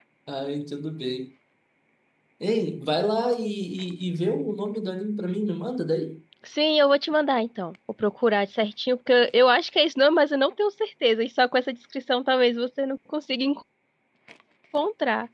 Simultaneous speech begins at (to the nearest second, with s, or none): none